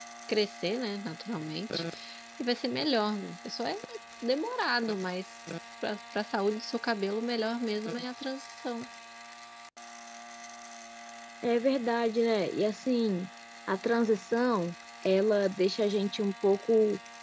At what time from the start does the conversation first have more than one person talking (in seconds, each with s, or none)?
none